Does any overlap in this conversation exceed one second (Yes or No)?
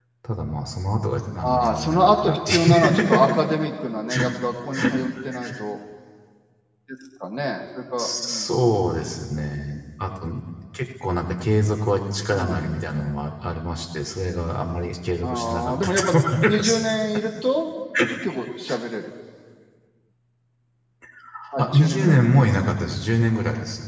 Yes